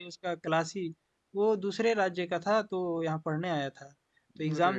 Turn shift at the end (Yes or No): No